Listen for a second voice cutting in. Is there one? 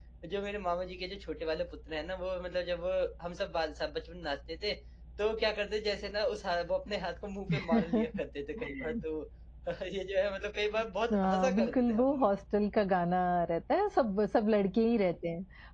Yes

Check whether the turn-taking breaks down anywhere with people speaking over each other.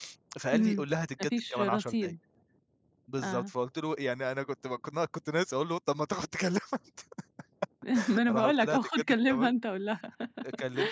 Yes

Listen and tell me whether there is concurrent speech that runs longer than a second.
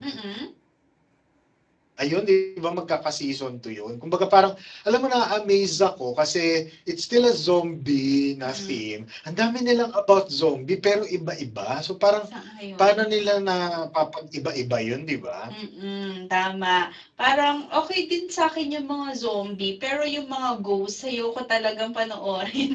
No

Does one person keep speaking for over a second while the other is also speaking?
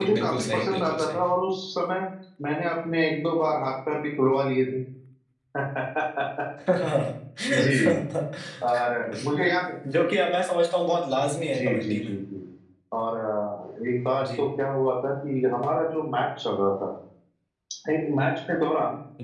Yes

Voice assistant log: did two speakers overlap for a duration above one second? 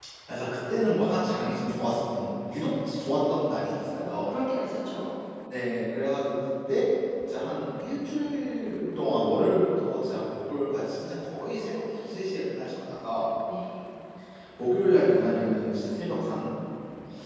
No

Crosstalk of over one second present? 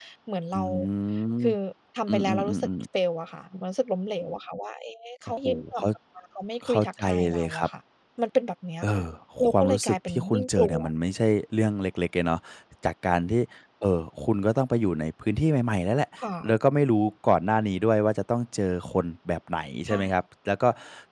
Yes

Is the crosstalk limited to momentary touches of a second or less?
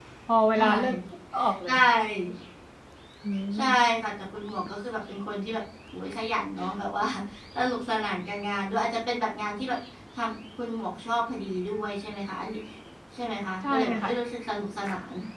Yes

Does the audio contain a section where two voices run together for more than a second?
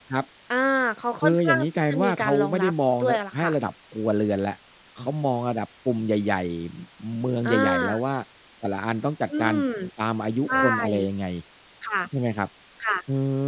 Yes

